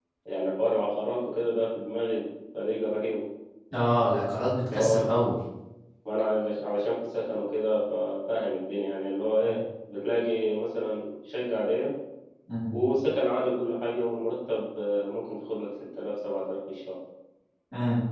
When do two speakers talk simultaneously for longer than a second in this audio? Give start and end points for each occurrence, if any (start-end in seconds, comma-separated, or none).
none